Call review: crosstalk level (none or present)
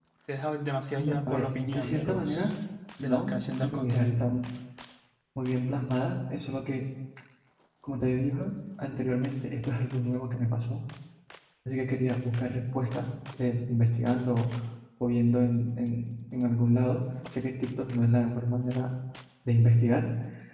present